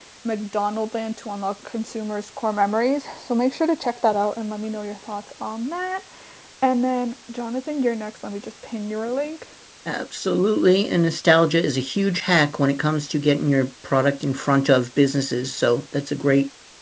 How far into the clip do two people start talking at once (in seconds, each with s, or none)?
none